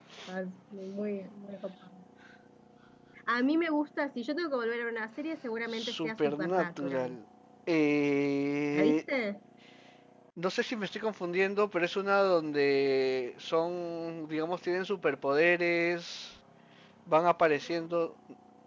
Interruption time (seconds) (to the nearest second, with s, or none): 6 s